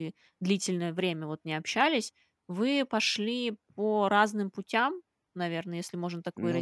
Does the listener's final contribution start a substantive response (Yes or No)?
No